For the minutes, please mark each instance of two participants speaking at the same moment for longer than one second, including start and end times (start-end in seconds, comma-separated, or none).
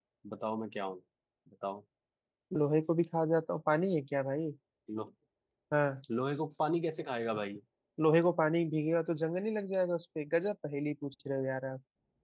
none